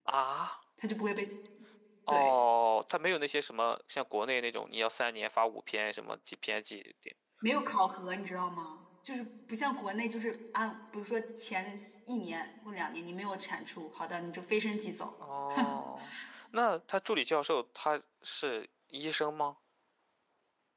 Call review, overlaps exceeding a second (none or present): none